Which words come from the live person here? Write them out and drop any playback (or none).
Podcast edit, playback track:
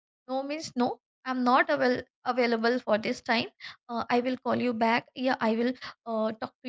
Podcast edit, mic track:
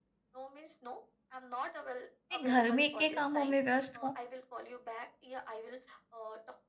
मैं घर में के कामों में व्यस्त हूँ,